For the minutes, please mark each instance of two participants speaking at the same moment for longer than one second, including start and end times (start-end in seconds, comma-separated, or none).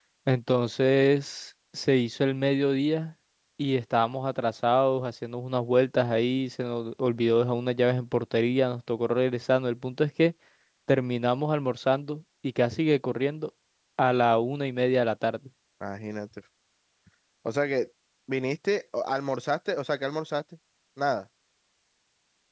none